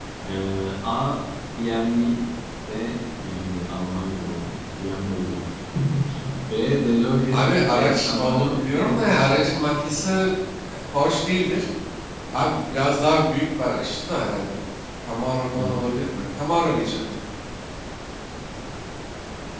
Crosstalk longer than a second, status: present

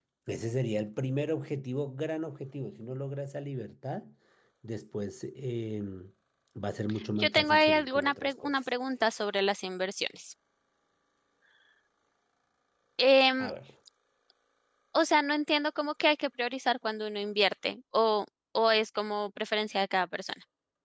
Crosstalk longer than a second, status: present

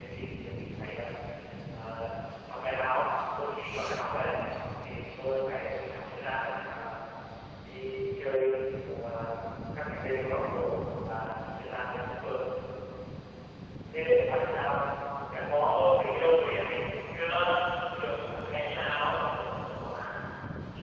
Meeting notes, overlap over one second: present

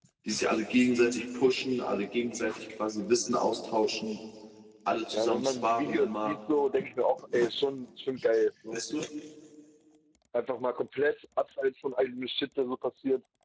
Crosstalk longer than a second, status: present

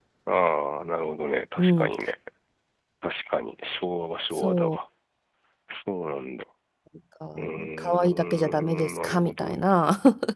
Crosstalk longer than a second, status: present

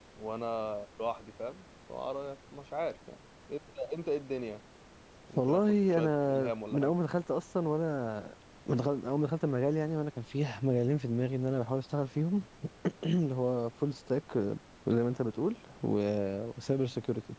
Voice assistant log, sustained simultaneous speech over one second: present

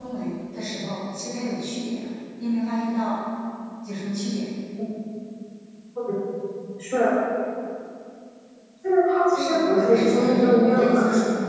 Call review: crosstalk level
present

